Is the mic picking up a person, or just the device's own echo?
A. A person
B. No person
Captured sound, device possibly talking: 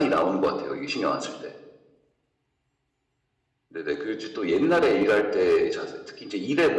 B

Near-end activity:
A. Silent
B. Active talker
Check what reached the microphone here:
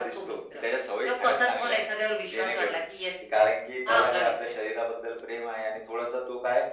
A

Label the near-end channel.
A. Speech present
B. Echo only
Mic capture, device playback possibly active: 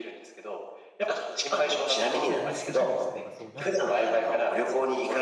A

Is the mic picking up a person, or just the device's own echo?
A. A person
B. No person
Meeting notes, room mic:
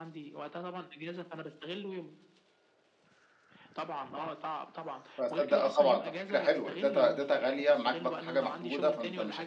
A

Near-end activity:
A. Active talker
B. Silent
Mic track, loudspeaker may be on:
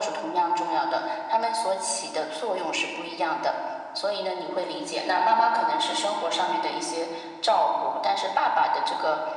B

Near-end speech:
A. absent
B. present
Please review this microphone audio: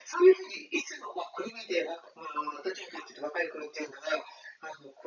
A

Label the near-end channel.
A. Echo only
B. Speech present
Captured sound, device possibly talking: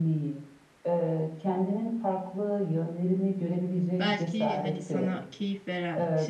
B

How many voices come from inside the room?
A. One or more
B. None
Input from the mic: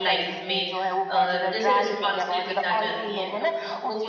A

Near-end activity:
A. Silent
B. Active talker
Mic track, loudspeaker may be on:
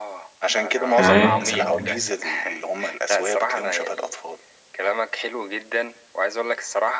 B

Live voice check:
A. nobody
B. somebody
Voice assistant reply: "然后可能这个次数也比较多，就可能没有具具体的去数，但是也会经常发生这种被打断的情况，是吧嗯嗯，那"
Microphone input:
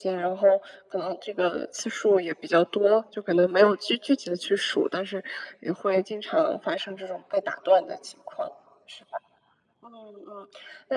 A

